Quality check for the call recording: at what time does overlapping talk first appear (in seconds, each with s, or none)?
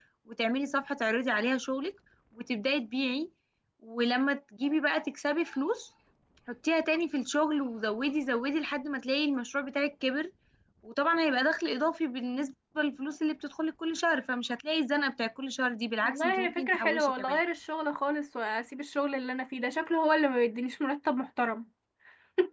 16.0 s